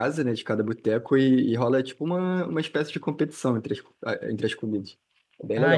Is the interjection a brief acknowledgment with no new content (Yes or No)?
No